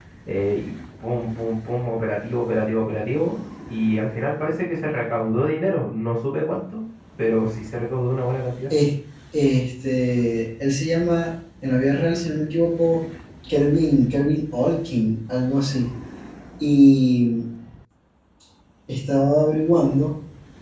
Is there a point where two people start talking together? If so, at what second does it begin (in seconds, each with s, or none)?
none